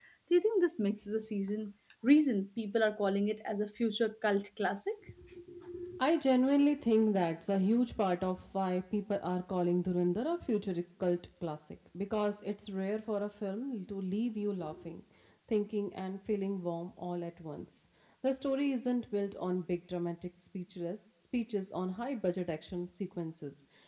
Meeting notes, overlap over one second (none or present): none